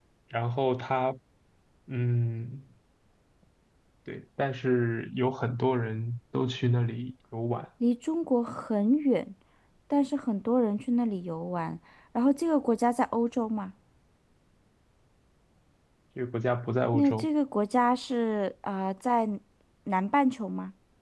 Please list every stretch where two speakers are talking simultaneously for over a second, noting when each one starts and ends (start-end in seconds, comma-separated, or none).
none